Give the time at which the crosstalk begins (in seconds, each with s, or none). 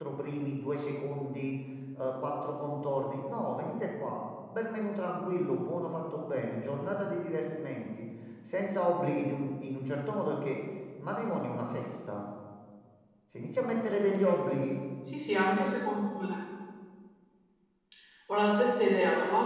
none